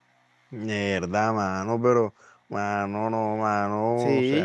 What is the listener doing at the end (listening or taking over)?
taking over